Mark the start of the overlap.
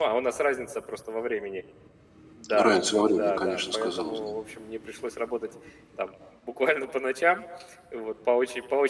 2.6 s

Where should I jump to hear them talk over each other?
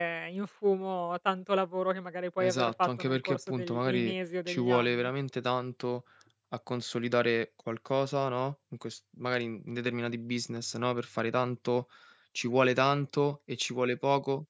2.4 s

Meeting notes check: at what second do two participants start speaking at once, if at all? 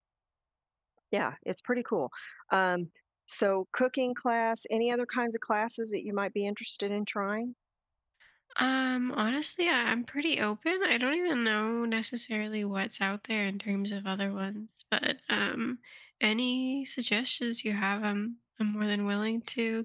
none

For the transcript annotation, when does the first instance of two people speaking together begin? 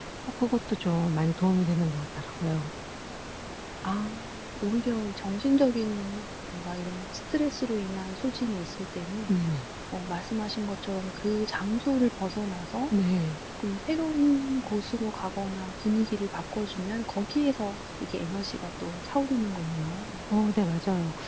none

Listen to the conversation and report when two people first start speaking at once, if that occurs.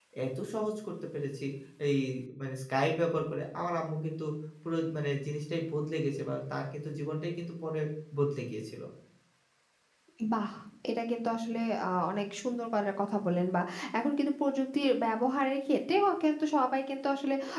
none

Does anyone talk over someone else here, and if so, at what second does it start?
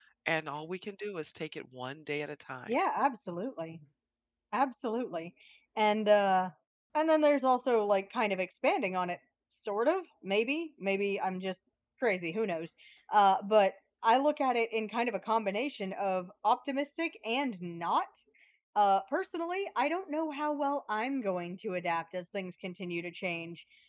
none

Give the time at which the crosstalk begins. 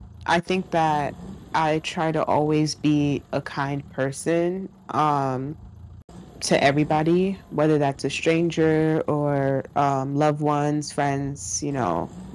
none

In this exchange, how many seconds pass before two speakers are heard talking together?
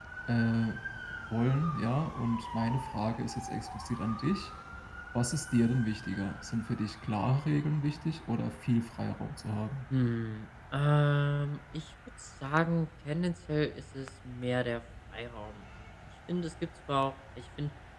none

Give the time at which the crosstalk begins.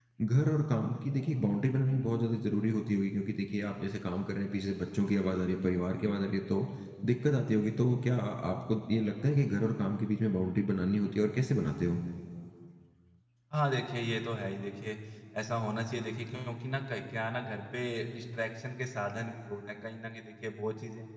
none

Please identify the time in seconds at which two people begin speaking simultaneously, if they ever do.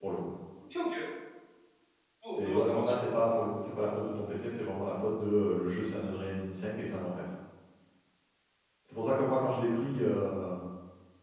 2.4 s

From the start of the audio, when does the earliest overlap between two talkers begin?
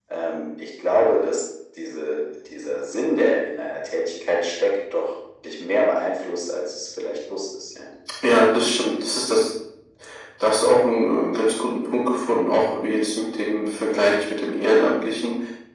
none

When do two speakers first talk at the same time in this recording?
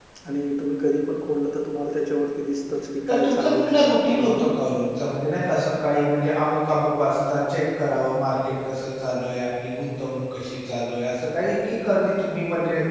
3.1 s

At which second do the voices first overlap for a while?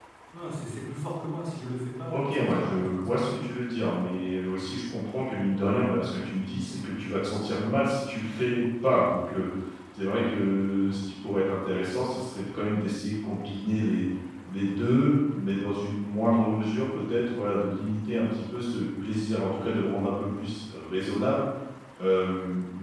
2.1 s

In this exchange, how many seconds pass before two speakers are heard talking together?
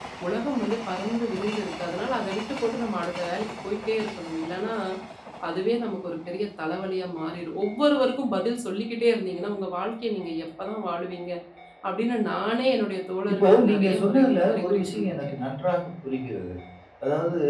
13.3 s

